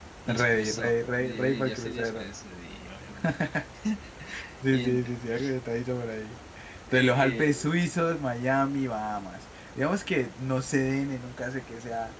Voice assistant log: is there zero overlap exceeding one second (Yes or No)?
No